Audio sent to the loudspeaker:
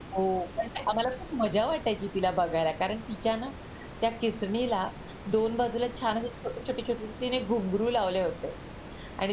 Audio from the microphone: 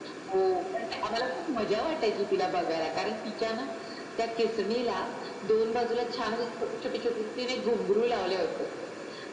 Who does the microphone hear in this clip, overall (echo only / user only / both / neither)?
echo only